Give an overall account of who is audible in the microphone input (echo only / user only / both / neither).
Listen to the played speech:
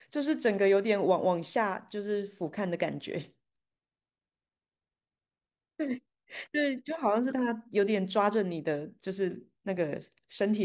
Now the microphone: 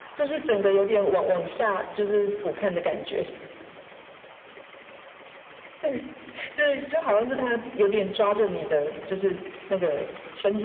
echo only